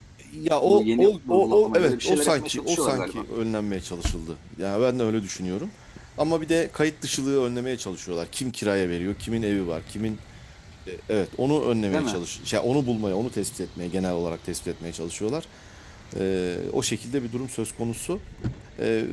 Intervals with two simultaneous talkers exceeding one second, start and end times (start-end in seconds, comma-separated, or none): 0.7-3.2